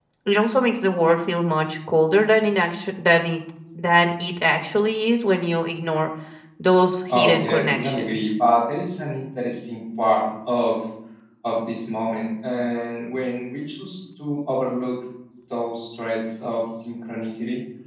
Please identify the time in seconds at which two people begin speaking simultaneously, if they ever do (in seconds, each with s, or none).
7.1 s